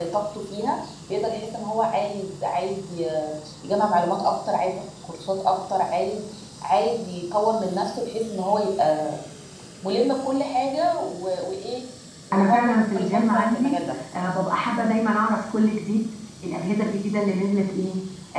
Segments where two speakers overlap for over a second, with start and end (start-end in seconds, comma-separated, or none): 12.3-13.8